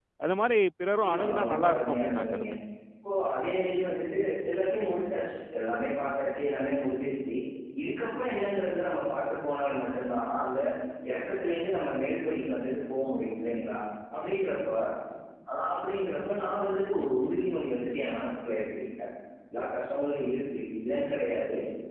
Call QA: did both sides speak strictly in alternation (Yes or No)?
No